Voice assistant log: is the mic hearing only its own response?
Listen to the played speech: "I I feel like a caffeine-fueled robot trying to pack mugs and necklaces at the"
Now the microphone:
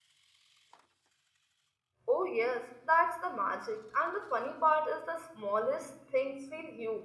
No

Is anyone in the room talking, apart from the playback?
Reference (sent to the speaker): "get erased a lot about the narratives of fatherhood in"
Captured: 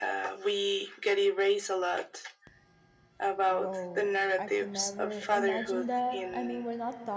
Yes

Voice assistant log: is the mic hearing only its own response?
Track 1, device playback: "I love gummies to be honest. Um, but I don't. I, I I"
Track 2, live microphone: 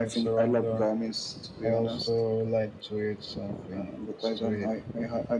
No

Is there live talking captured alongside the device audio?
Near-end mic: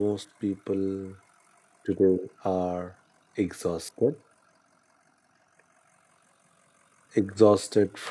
Yes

